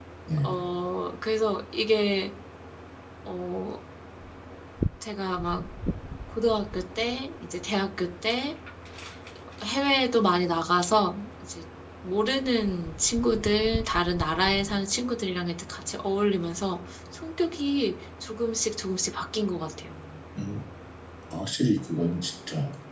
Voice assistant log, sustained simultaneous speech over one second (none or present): none